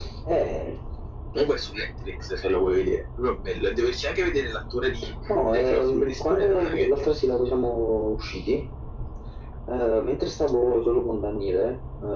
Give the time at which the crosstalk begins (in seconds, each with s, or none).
5.3 s